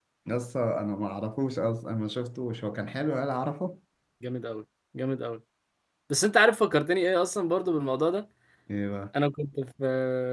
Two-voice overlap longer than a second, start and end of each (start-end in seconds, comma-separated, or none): none